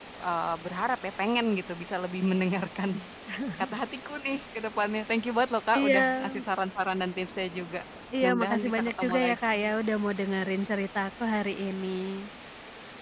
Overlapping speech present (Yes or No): Yes